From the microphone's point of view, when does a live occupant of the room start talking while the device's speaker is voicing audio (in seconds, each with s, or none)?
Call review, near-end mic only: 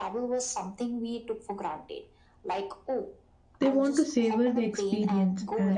3.6 s